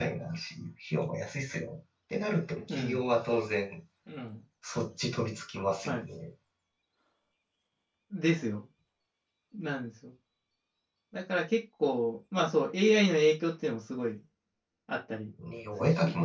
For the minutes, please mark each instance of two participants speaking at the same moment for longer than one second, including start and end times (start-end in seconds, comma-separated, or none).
none